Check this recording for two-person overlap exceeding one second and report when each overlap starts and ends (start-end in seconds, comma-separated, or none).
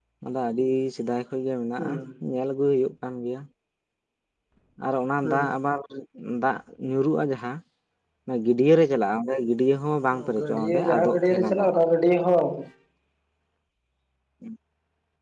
10.4-11.7